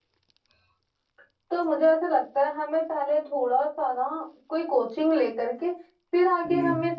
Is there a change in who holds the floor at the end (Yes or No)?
No